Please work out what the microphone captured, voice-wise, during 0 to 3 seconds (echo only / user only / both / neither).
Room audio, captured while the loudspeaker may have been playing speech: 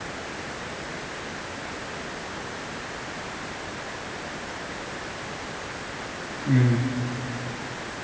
neither